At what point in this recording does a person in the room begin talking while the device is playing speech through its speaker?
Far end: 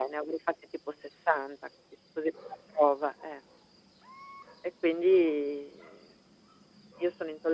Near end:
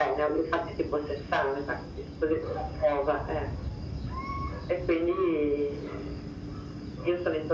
none

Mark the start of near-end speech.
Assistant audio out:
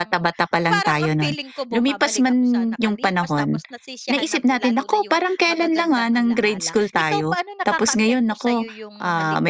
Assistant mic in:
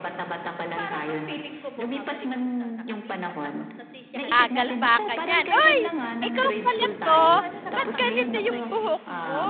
4.3 s

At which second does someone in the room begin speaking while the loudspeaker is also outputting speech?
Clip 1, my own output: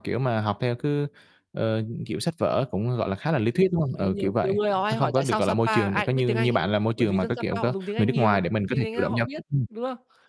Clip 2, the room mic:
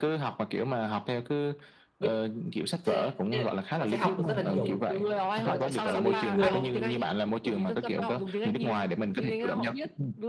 2.0 s

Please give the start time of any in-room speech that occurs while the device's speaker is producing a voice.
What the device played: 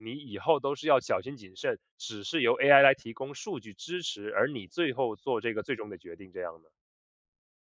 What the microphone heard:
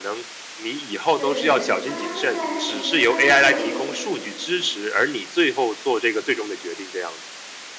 1.1 s

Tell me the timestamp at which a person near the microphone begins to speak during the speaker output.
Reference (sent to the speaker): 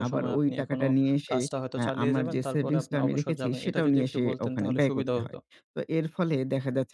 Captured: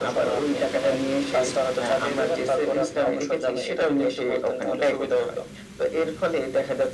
none

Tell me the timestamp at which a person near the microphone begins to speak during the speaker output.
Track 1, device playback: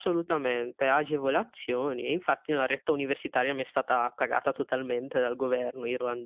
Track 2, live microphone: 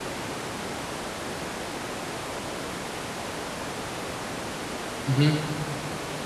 5.1 s

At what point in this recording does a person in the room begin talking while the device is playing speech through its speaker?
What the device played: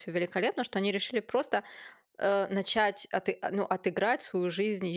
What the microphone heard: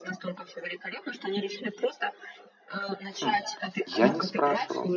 3.2 s

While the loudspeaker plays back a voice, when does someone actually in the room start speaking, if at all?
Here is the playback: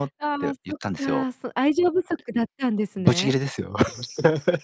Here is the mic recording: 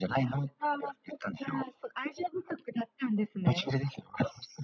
none

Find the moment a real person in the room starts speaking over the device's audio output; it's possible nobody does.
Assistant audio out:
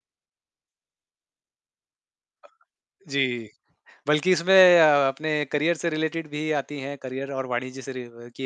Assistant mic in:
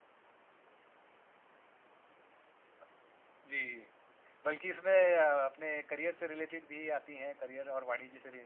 none

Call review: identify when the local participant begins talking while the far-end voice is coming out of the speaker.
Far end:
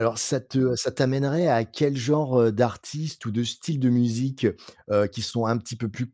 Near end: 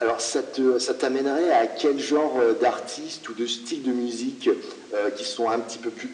none

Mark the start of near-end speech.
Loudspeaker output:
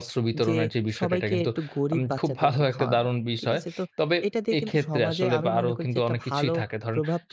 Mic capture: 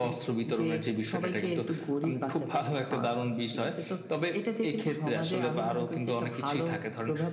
none

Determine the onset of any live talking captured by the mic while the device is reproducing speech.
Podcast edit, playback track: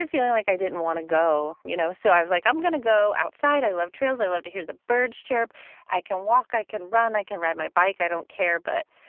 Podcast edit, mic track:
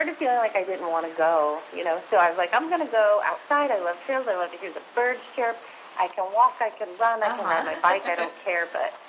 7.2 s

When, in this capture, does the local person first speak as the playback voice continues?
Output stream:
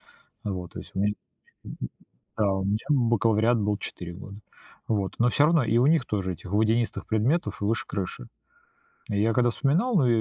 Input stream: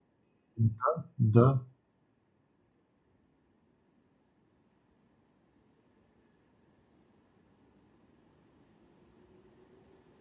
0.6 s

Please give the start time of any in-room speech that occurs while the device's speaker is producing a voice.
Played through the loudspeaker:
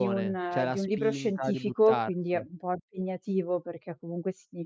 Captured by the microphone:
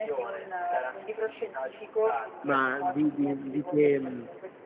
2.4 s

